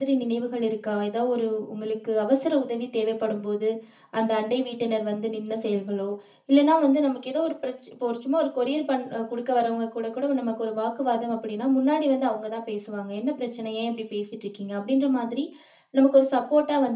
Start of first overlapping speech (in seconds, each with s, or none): none